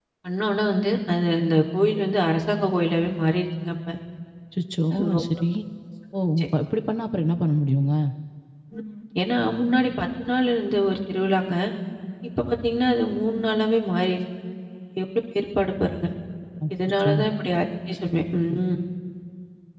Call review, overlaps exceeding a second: none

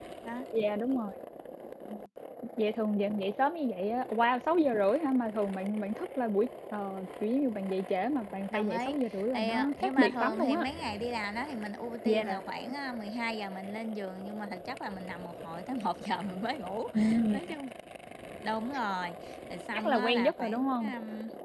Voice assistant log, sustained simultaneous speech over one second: present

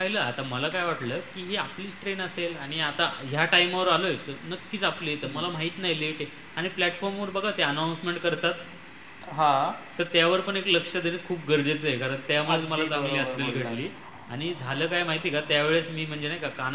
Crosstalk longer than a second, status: present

